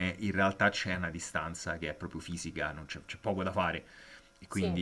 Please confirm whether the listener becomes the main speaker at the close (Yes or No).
No